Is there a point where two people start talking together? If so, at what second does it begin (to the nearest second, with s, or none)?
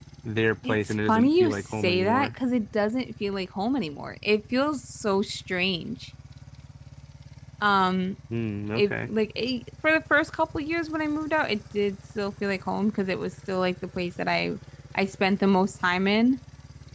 1 s